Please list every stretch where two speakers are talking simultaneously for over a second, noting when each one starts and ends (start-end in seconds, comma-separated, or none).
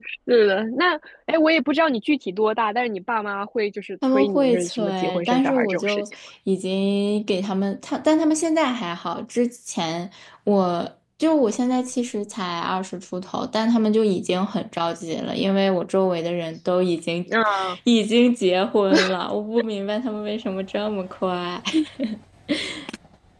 4.1-6.1